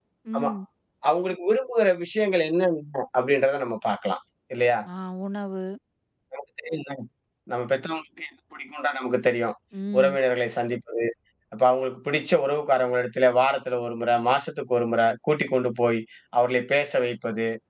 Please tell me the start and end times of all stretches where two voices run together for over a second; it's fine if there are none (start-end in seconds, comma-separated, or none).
none